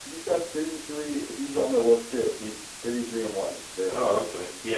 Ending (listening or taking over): taking over